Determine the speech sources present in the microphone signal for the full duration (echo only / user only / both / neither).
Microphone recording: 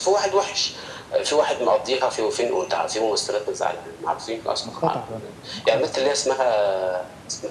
both